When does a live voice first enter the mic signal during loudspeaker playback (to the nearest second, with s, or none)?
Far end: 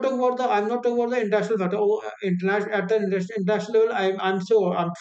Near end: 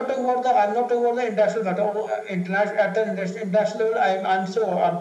none